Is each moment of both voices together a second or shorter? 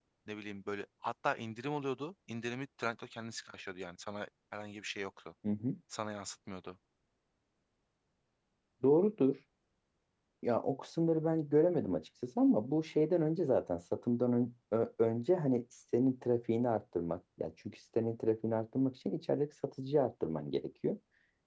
Yes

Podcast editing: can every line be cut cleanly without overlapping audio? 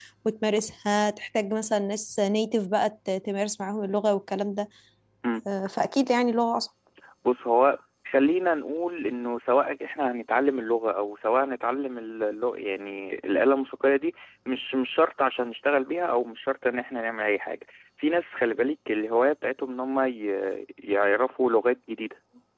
Yes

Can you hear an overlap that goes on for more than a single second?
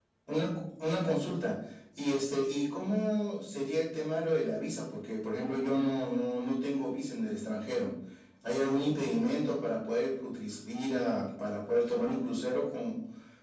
No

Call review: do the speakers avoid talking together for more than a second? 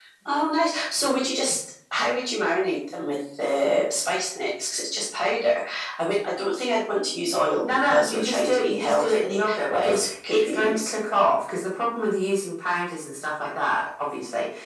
No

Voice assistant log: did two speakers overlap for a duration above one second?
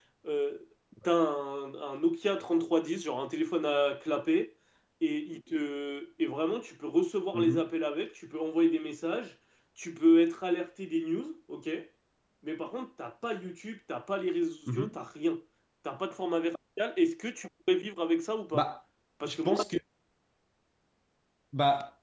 No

